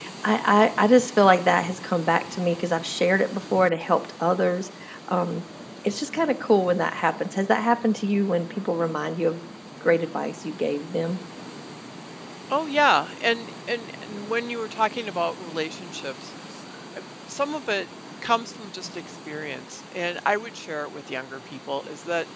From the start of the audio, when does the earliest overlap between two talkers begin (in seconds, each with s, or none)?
none